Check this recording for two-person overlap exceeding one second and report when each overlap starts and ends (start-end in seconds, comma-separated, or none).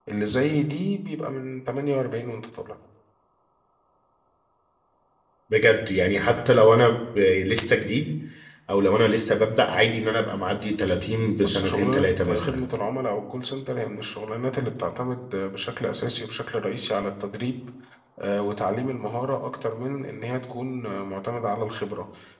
11.4-12.6